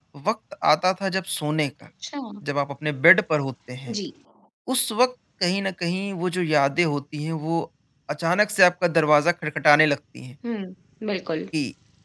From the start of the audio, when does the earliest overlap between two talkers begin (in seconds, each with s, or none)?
none